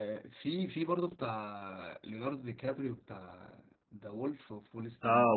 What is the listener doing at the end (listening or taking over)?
taking over